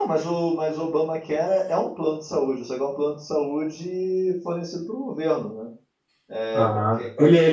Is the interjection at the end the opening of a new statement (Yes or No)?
Yes